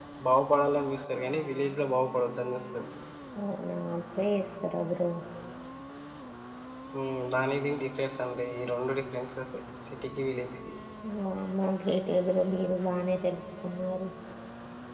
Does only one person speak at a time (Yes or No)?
Yes